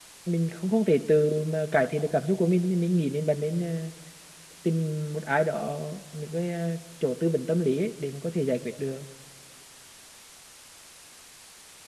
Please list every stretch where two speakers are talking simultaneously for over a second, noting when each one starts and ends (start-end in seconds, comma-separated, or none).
none